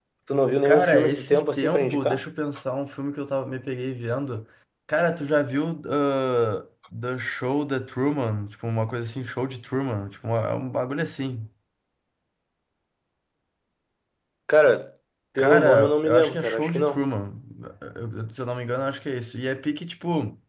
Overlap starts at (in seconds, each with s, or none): 0.6 s